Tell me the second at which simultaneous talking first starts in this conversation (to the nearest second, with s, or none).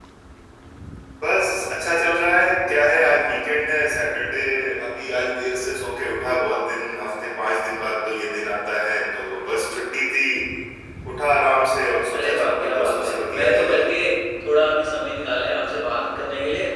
12 s